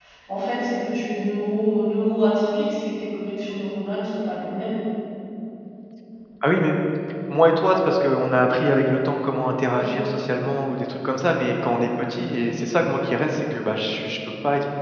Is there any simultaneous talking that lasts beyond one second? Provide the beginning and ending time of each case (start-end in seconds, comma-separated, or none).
none